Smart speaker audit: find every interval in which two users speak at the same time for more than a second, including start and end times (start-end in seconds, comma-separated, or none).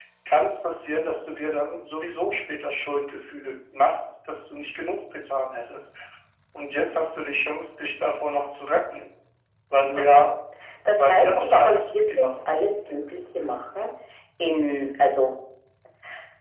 11.0-12.3